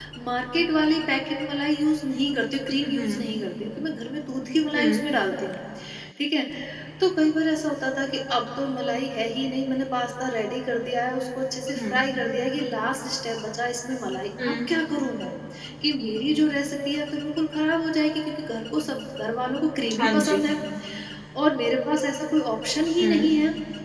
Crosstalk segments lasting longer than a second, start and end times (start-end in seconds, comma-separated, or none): none